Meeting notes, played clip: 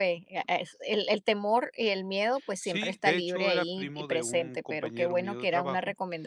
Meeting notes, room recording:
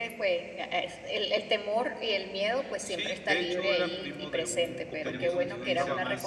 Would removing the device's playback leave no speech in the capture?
No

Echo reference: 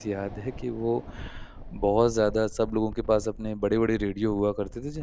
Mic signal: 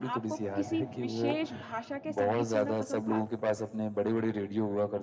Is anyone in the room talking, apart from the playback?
Yes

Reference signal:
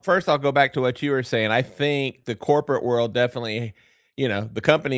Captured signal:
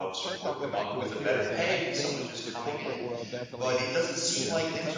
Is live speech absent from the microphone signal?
No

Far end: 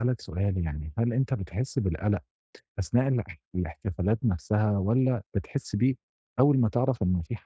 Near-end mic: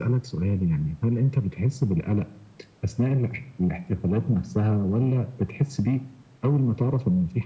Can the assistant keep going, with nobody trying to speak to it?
Yes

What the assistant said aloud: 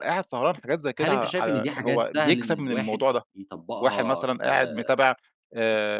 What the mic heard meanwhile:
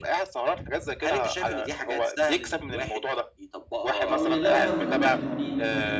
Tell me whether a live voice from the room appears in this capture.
Yes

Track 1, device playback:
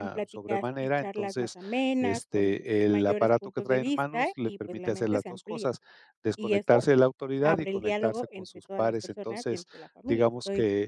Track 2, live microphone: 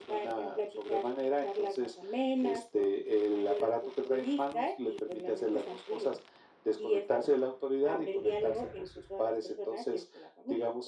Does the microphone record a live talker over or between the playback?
No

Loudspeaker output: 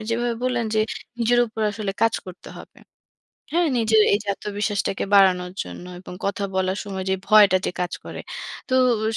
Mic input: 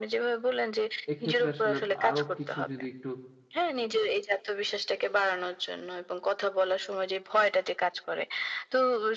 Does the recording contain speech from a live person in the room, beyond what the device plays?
Yes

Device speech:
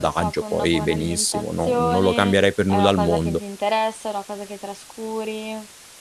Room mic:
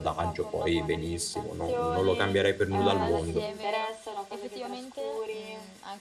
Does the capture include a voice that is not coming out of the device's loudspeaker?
Yes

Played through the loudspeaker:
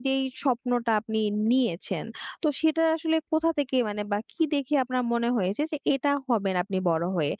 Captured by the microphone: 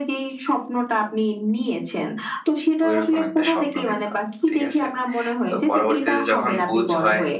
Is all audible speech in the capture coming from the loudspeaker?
No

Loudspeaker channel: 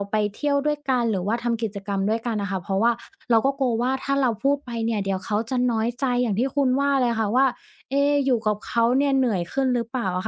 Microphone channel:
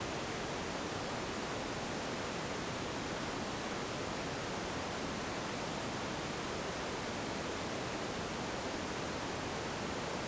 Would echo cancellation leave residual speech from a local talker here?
No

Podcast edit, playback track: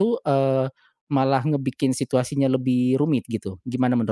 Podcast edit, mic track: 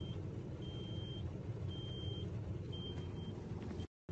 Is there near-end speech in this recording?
No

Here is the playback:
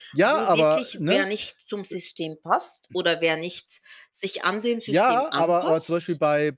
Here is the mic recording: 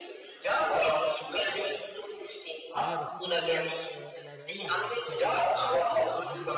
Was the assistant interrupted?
Yes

